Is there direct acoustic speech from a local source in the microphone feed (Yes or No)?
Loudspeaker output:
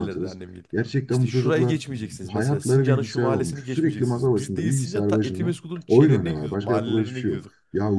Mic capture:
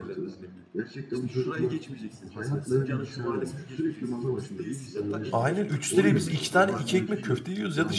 Yes